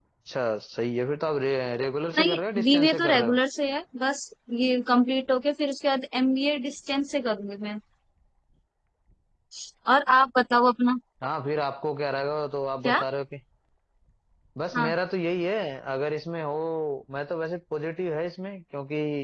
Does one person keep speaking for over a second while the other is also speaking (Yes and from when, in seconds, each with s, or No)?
Yes, from 2.2 s